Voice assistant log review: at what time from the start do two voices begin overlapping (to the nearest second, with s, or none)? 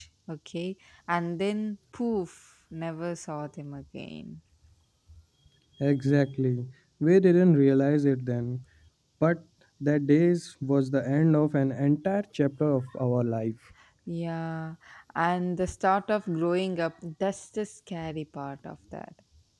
none